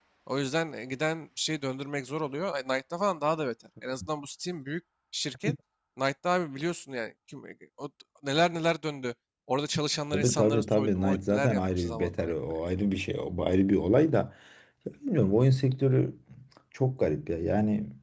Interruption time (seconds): 10 s

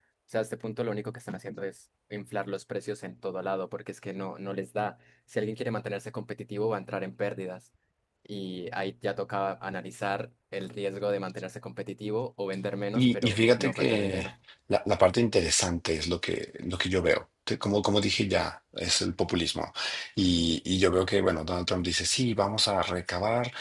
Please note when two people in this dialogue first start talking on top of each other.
13 s

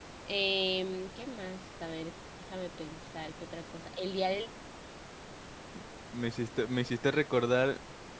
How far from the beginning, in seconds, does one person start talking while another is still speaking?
none

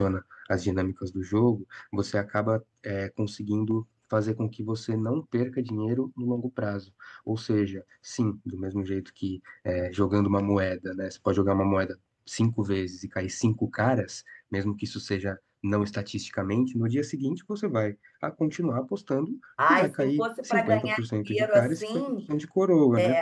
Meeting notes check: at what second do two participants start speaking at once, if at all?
20 s

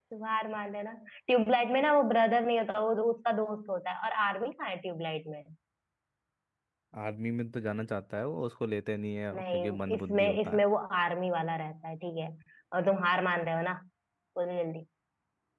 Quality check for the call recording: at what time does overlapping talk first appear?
9 s

